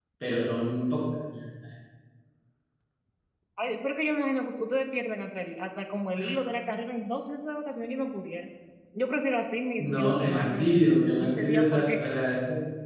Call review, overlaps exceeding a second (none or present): present